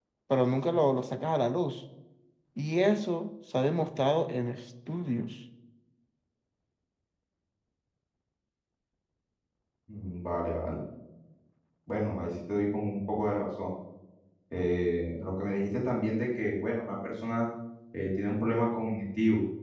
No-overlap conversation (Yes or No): Yes